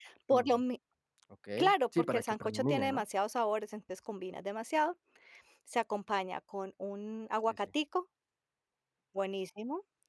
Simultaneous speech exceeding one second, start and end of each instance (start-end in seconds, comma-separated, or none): 1.6-3.0